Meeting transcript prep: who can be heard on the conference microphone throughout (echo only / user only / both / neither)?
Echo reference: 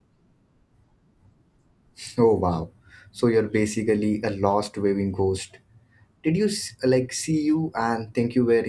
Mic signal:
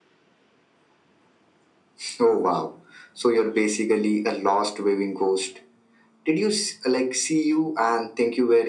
echo only